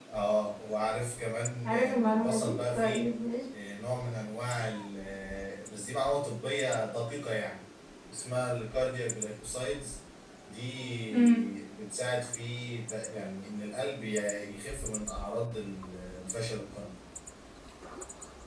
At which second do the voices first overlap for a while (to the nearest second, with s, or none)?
2 s